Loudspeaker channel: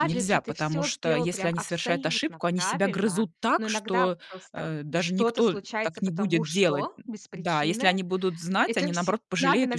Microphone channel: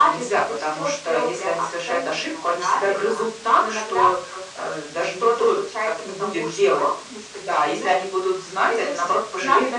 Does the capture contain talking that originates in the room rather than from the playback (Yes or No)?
No